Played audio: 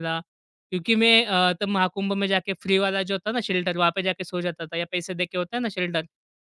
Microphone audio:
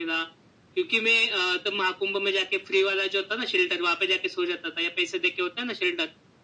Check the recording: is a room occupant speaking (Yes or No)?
No